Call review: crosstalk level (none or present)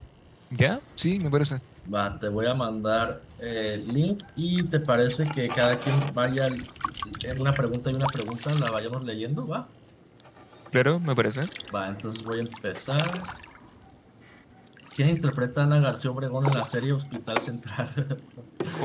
none